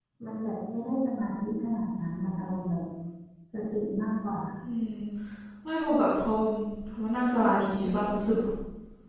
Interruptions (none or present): none